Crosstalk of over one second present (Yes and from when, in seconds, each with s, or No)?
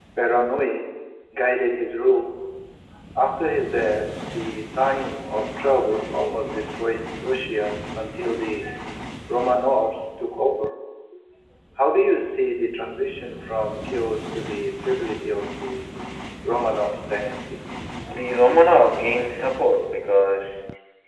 No